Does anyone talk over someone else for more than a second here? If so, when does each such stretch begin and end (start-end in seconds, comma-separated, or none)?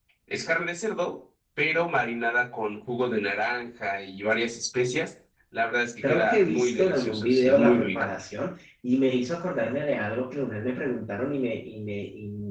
6.0-8.1